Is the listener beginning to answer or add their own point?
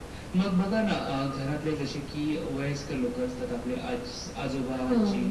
No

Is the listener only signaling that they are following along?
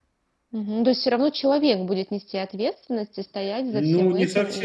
No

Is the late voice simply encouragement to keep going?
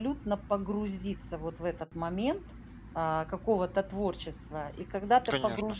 Yes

